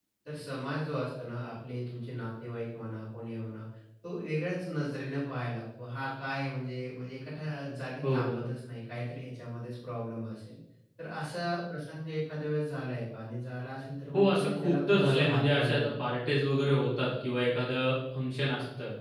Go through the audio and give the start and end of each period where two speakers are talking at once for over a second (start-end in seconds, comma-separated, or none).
14.1-15.9